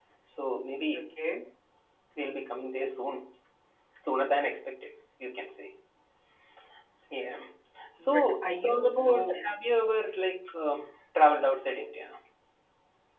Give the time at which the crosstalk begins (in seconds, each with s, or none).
8.0 s